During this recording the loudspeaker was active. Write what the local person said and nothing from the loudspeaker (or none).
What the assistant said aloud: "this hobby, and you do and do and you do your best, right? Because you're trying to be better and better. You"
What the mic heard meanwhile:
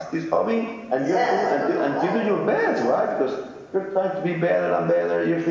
Yeah, I don't know why, but we do that.